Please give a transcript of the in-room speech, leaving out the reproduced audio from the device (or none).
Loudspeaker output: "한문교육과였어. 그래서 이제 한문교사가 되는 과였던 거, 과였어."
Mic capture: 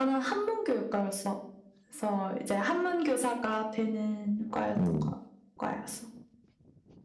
음,